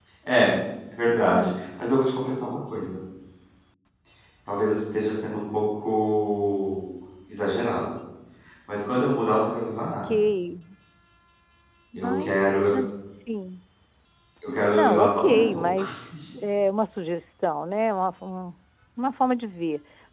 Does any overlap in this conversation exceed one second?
Yes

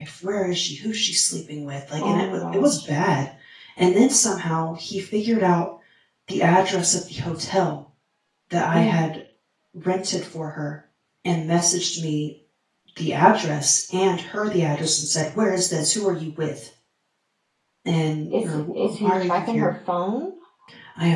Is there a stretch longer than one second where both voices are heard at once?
Yes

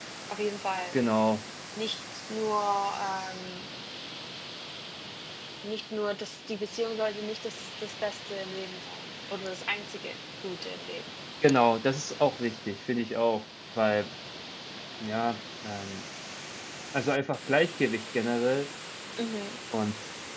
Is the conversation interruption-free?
Yes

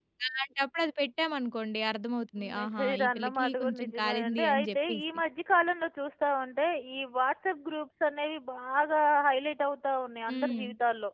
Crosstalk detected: Yes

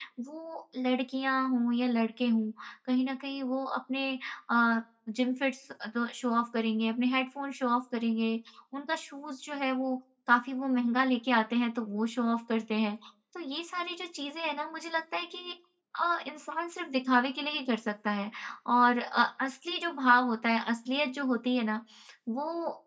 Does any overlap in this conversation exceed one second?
No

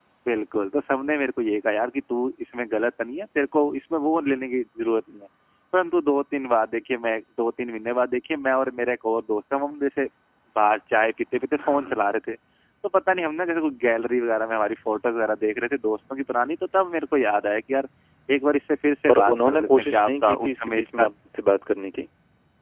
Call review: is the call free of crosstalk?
No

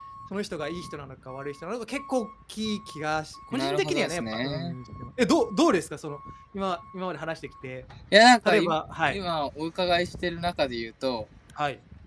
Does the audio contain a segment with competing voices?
Yes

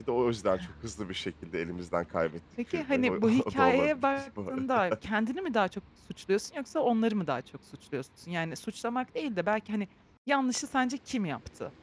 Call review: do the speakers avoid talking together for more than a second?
No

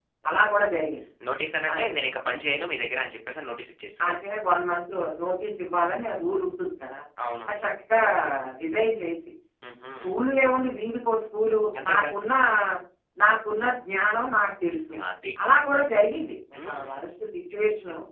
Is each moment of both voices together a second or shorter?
Yes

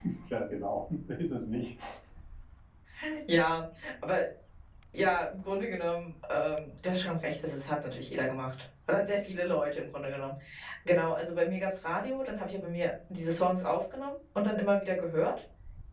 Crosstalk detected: No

